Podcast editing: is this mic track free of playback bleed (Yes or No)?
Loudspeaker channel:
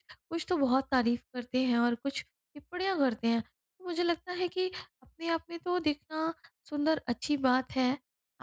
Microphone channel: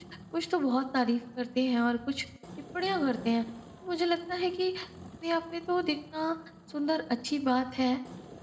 No